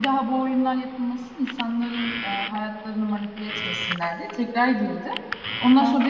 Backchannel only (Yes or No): Yes